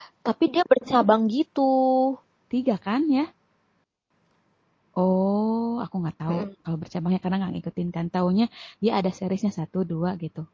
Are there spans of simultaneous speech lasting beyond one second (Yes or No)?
No